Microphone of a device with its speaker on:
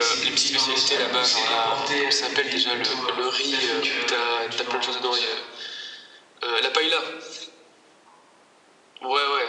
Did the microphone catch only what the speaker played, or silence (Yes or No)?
No